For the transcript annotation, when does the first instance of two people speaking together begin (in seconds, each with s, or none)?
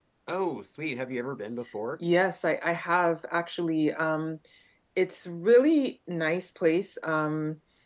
none